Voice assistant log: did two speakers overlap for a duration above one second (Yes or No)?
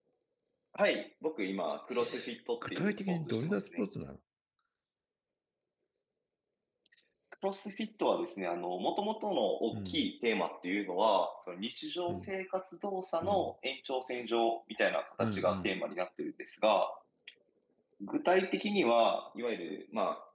Yes